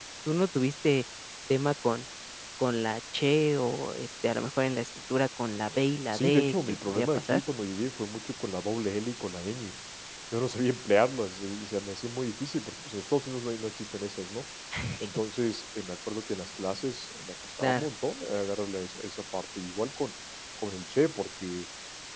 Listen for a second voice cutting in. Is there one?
Yes, from 6.1 s

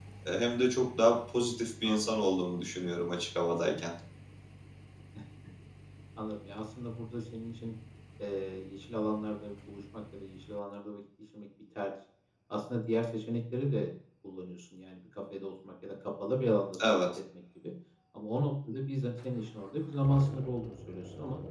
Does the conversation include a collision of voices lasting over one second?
No

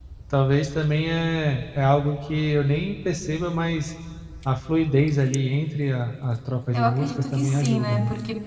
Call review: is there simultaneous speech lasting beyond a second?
Yes, from 6.7 s

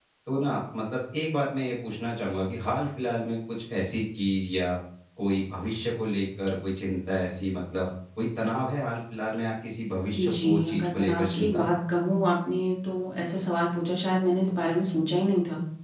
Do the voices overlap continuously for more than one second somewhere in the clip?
Yes, from 10.2 s

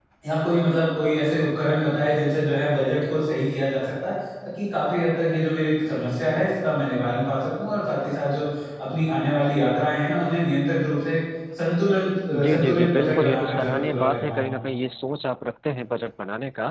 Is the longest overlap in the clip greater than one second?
Yes, from 12.3 s

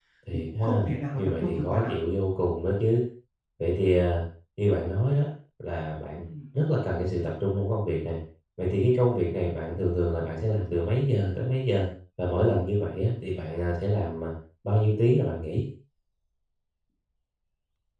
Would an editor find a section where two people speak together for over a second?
Yes, from 0.5 s

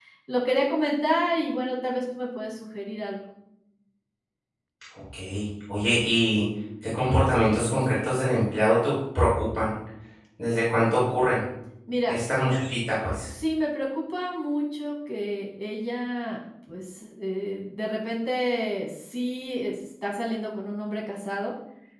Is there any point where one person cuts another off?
No

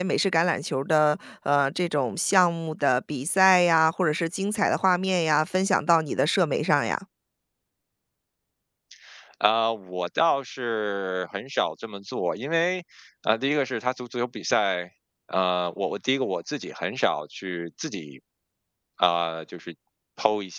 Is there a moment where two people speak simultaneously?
No

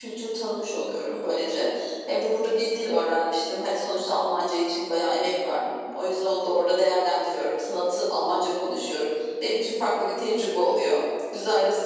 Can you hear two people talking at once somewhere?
No

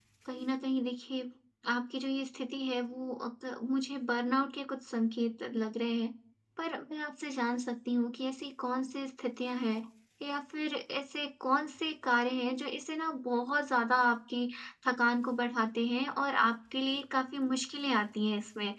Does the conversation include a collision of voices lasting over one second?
No

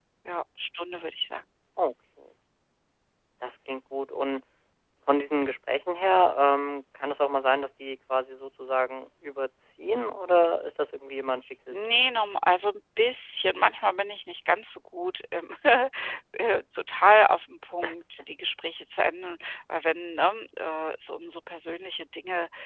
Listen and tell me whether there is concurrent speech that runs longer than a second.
No

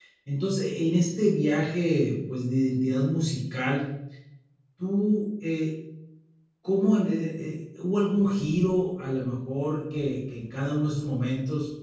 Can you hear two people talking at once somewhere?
No

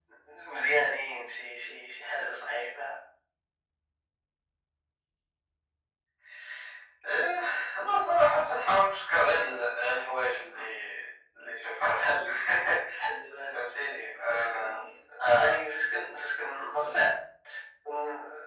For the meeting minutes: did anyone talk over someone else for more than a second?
No

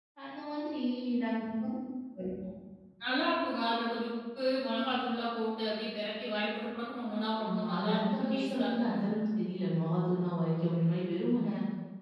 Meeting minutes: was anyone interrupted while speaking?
Yes, from 7.4 s

